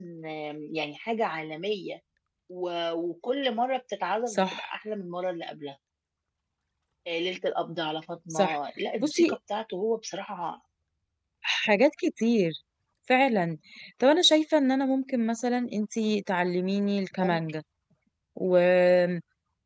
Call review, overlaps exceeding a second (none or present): none